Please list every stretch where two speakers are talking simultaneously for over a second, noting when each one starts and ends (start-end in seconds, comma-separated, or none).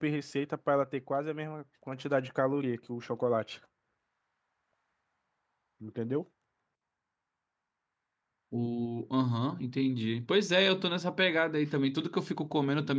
none